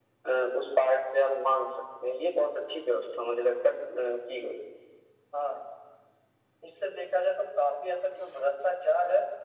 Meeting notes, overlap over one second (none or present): none